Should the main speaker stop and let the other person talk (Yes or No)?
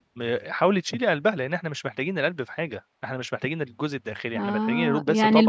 Yes